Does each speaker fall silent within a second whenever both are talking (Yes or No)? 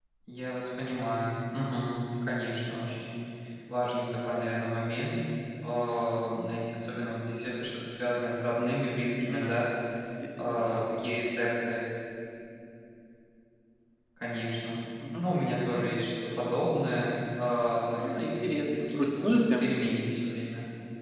No